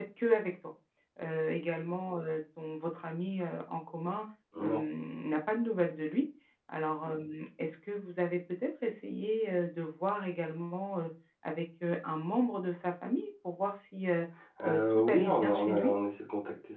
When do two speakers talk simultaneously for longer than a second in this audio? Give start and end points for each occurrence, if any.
14.7-15.9

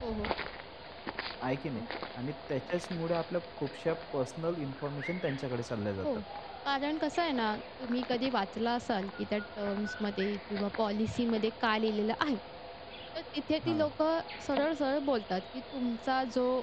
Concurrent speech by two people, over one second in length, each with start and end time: none

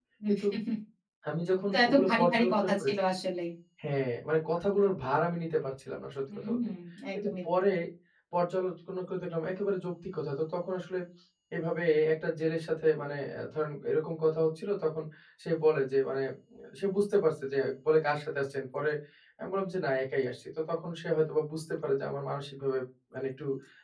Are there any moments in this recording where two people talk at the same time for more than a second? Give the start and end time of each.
1.7-2.9

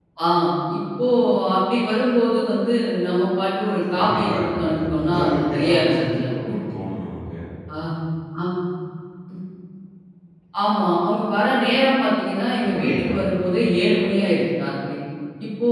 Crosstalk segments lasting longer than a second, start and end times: 3.9-6.2

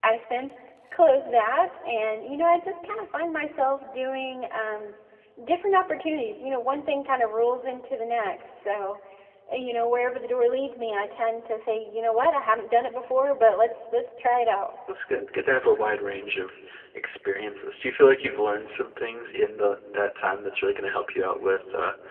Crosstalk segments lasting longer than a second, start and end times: none

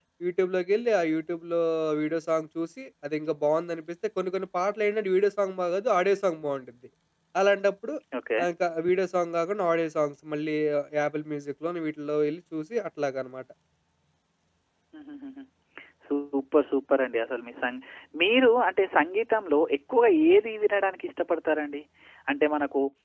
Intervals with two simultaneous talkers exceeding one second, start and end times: none

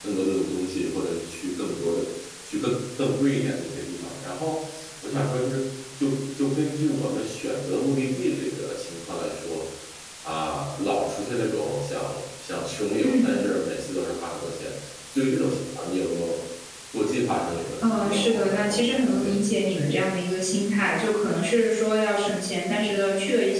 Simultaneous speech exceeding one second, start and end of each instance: 17.8-19.5

